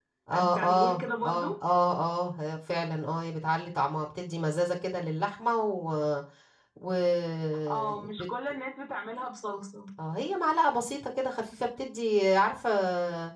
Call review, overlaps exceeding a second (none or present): present